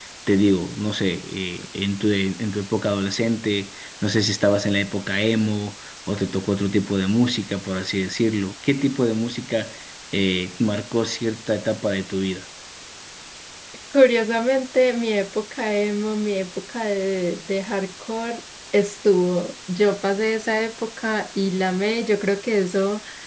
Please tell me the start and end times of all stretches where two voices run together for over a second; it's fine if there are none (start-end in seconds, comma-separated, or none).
none